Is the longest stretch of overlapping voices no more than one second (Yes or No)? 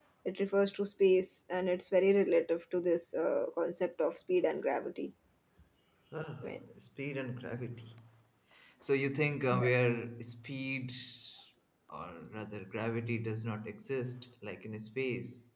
Yes